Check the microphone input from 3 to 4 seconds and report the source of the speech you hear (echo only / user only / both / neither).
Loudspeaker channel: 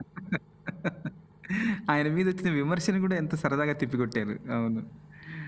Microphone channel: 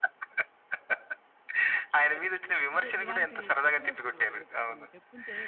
both